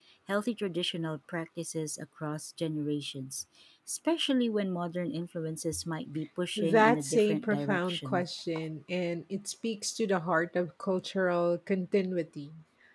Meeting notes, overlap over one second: present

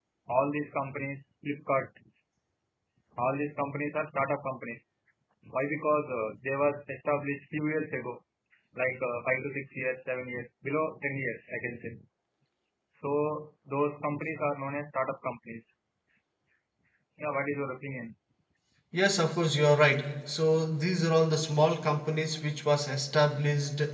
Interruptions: none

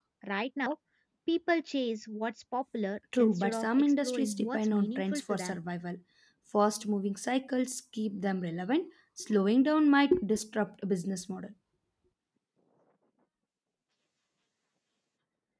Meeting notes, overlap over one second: present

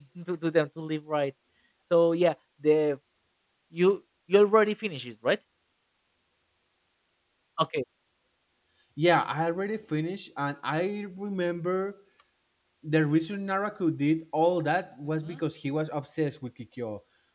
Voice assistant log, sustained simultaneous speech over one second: none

